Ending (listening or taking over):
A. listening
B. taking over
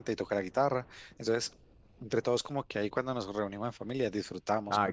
B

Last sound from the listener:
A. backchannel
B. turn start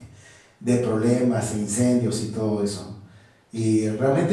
A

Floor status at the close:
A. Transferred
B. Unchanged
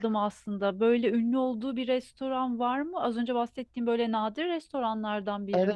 A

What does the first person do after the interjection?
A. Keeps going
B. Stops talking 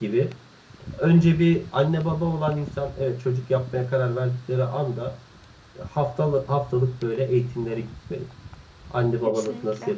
A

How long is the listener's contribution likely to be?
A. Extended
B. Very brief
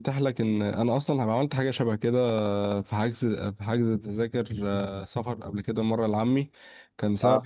B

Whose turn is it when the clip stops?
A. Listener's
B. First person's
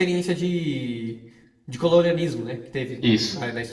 A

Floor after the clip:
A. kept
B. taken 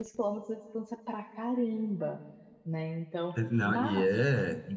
B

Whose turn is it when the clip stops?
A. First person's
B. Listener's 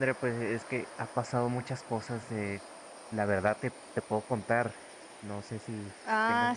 B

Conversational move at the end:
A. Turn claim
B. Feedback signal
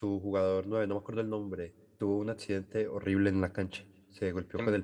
B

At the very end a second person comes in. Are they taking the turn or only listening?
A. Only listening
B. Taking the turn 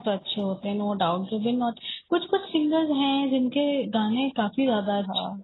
B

